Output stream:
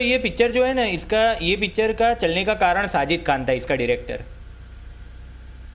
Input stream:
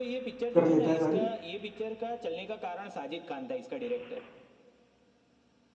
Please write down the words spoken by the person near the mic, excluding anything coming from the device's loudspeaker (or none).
कर लेता है सारी